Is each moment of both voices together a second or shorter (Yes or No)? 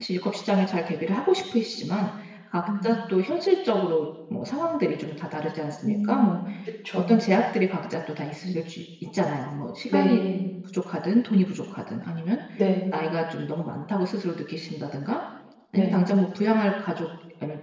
Yes